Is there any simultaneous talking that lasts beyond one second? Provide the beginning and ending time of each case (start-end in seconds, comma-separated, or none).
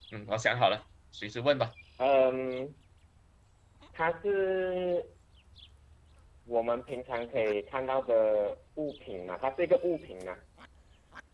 none